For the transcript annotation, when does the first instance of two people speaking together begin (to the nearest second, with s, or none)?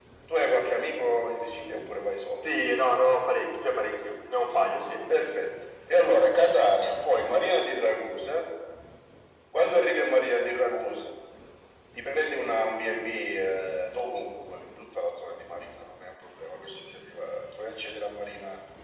none